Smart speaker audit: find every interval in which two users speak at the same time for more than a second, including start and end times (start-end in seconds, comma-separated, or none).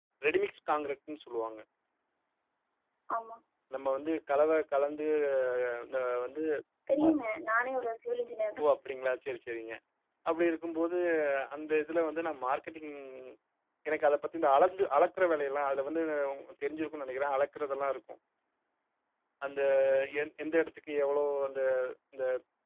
none